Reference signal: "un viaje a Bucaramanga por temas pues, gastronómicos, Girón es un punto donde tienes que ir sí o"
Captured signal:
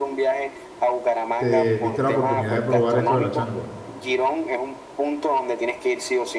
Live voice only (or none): te diste la oportunidad de probar esto de la changua.